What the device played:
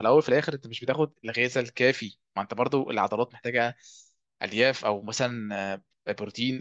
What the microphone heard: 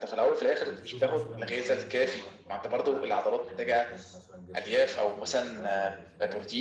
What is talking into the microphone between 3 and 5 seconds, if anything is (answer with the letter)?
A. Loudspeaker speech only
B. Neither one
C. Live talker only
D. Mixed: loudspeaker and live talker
D